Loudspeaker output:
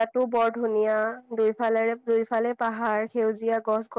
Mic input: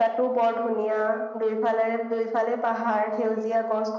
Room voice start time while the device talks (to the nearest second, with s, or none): none